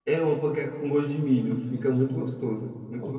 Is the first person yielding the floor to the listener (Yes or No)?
Yes